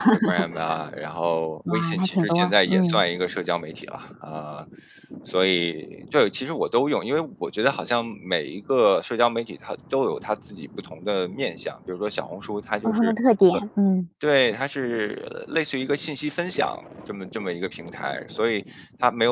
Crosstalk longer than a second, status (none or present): present